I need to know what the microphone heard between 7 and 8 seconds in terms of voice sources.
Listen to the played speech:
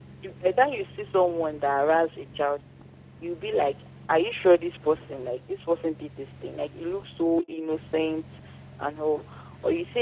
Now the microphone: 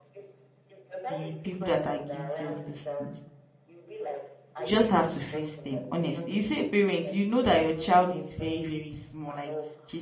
both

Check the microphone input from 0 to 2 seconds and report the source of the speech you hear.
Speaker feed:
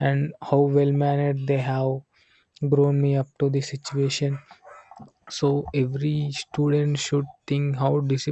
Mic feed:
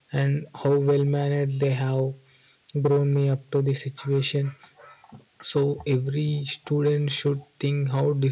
echo only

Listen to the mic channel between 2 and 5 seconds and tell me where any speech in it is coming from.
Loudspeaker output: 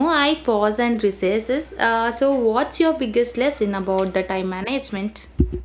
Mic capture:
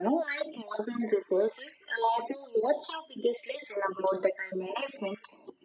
echo only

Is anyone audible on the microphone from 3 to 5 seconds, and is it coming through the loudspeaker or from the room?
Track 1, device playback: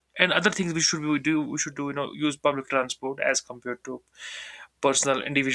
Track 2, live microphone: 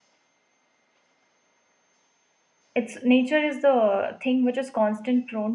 user only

